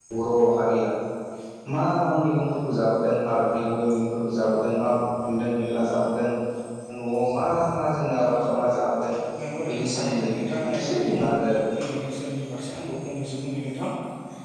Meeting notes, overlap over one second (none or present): present